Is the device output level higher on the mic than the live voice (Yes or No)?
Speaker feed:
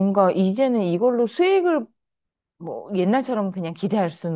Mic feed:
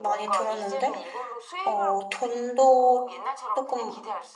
No